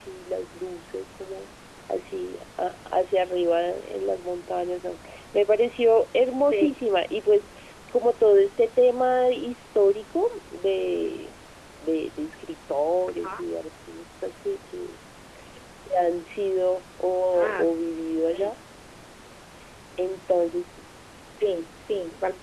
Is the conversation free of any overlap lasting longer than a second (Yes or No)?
Yes